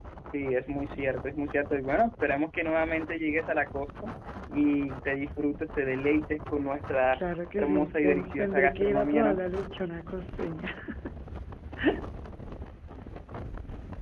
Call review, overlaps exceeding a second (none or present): present